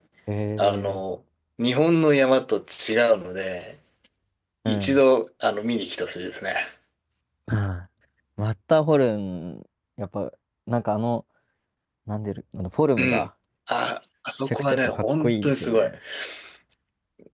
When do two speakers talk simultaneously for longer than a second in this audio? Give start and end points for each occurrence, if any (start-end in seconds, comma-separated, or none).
14.4-15.9